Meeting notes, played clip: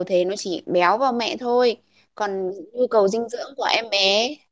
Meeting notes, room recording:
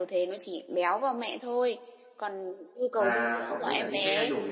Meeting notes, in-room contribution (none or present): present